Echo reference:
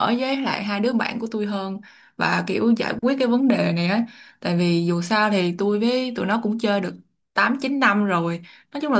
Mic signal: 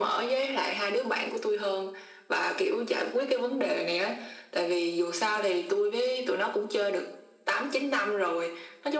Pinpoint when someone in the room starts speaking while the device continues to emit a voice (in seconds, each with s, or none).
none